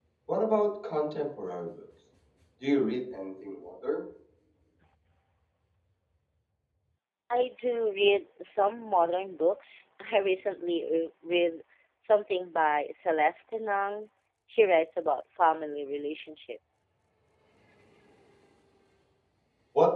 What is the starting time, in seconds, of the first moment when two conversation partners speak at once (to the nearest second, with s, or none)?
none